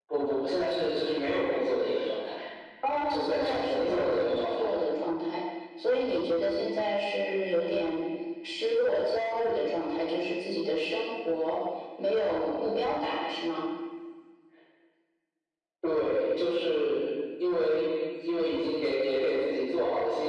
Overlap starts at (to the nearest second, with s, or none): 3 s